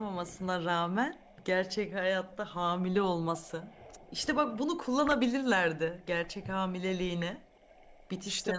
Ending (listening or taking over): taking over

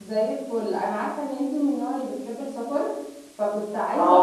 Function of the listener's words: listening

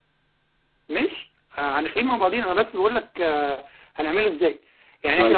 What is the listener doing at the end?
listening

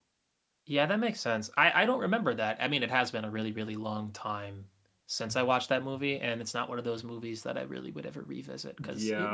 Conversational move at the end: taking over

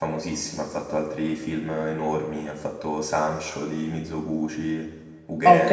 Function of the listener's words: taking over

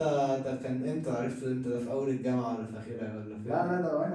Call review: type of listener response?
taking over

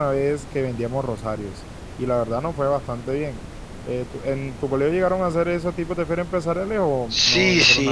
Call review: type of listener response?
taking over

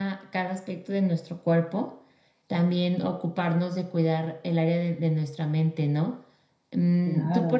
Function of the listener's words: listening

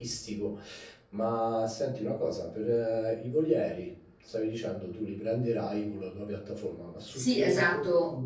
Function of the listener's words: taking over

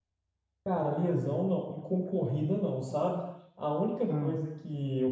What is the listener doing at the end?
listening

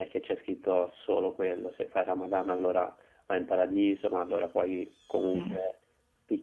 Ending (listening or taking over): listening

